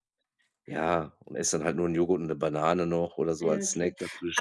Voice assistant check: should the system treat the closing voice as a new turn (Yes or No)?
Yes